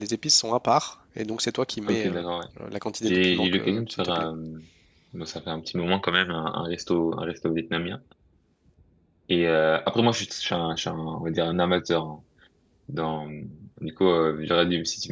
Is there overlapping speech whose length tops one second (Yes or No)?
Yes